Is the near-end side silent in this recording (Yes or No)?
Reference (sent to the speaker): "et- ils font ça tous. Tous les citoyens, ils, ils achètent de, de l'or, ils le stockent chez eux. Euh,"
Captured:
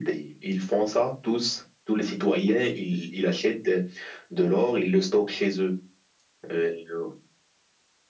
Yes